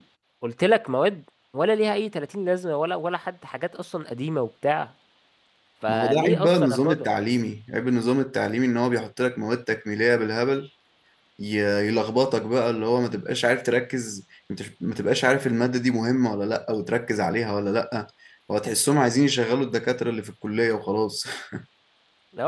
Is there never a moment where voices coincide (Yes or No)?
No